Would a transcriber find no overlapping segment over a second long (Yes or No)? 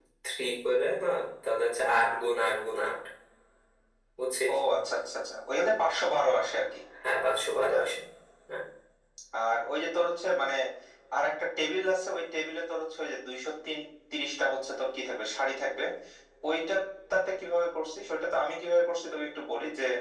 Yes